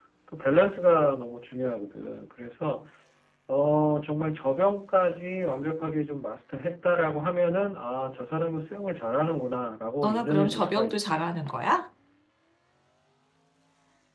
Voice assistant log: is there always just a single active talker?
No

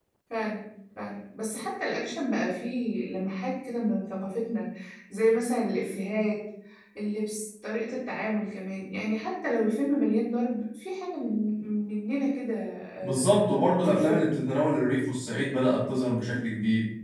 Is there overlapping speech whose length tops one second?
Yes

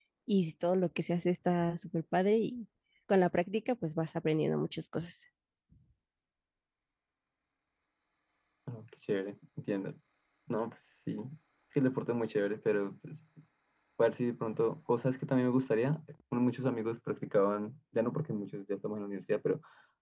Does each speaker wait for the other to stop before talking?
Yes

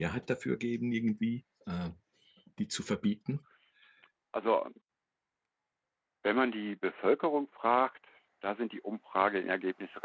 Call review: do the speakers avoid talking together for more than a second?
Yes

